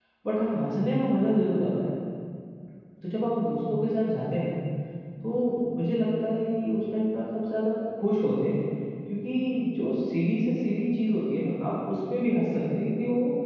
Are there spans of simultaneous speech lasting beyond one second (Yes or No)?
No